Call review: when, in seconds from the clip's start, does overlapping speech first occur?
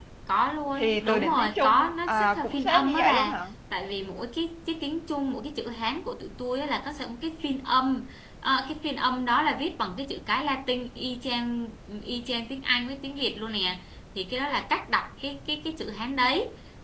0.8 s

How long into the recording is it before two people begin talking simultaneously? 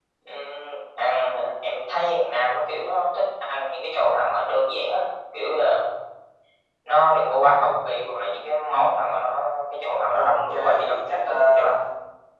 10.1 s

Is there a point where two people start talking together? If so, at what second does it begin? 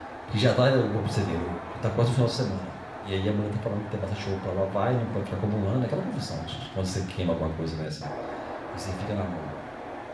none

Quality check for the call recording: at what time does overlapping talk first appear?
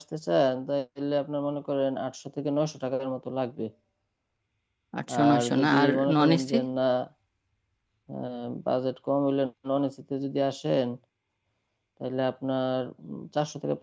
5.2 s

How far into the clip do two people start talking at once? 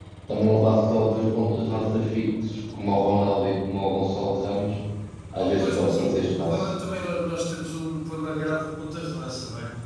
5.4 s

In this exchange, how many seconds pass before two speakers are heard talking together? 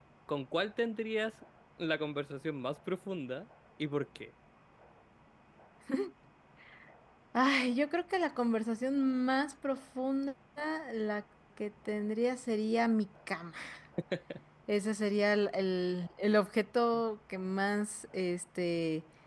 none

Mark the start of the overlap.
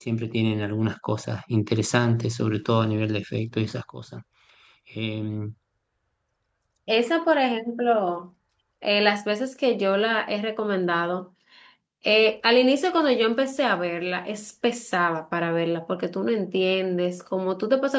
none

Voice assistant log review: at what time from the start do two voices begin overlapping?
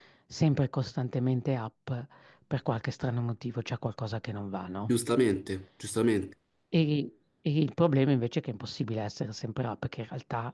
none

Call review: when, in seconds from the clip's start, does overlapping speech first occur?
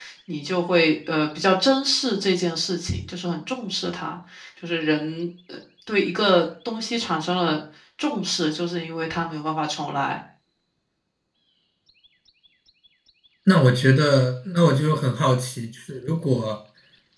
none

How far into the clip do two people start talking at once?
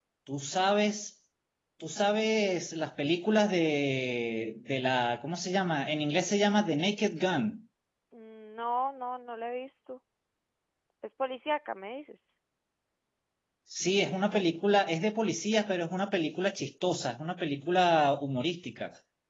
none

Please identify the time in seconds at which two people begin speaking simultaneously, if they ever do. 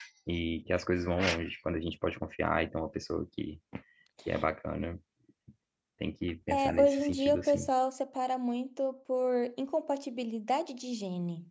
6.5 s

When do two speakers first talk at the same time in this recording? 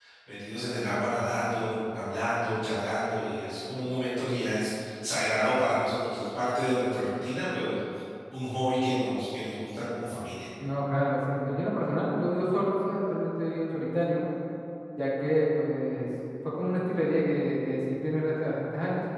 none

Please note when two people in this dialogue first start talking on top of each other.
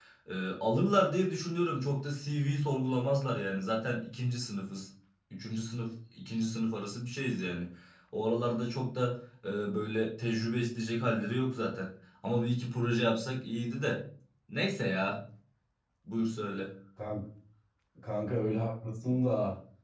none

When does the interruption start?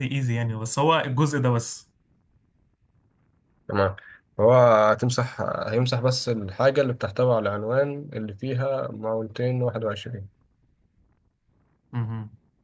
none

